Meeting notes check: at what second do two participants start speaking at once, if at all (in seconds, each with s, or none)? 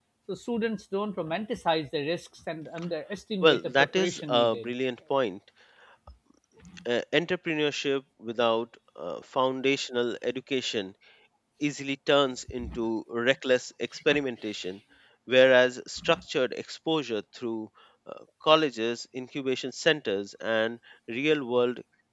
3.4 s